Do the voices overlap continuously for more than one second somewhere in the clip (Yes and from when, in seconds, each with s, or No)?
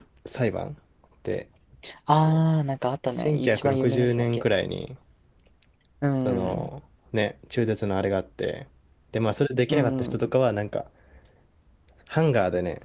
Yes, from 3.1 s